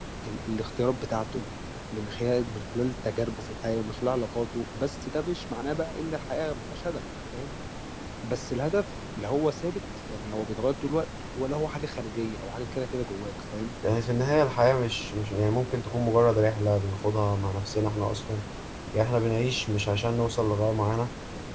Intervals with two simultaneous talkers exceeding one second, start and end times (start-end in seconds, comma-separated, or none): none